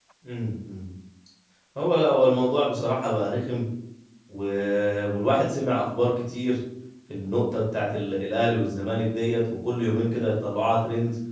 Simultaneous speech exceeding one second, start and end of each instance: none

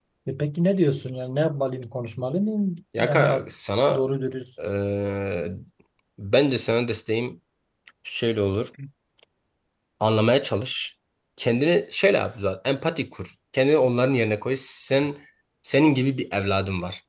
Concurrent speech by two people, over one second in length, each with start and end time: none

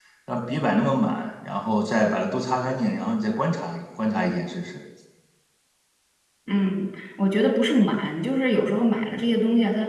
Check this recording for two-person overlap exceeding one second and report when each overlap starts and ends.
none

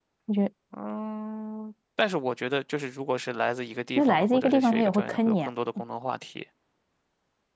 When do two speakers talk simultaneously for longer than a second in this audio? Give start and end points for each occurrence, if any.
4.0-5.5

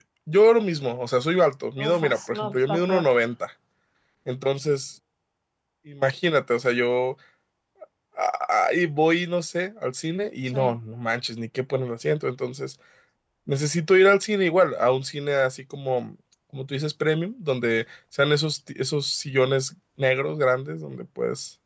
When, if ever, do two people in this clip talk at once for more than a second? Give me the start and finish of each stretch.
1.9-3.1

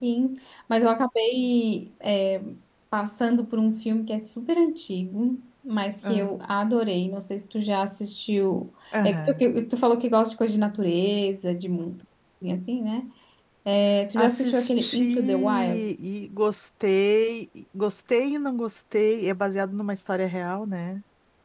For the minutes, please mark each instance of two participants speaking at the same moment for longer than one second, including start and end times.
14.2-15.9

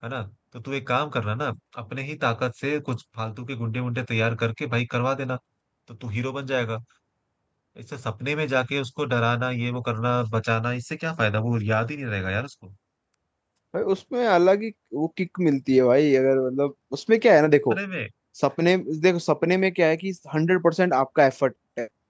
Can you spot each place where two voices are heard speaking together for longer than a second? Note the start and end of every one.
none

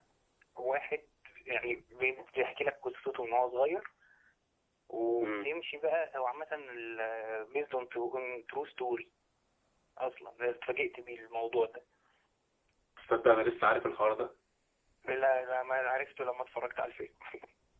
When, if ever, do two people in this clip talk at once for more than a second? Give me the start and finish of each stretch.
none

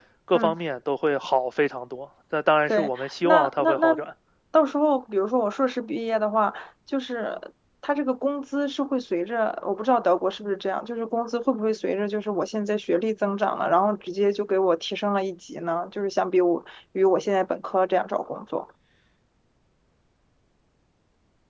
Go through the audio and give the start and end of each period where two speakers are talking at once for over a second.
2.7-3.9

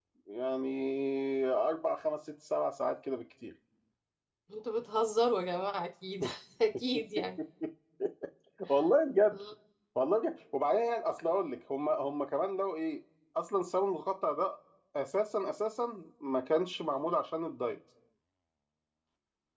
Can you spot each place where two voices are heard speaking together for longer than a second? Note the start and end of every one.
none

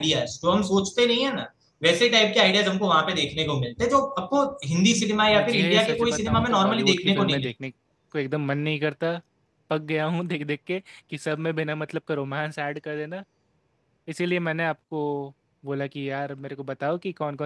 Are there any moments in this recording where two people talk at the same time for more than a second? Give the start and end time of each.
5.3-7.5

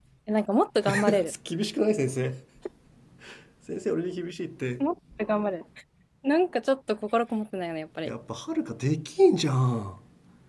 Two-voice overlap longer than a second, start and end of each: none

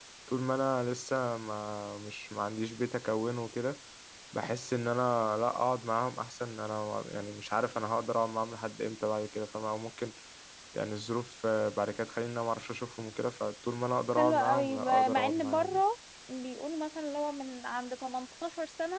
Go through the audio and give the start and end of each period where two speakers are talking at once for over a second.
14.2-15.8

